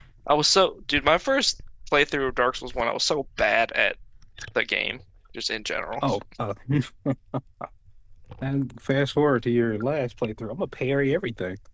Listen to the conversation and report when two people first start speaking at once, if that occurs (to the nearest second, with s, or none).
none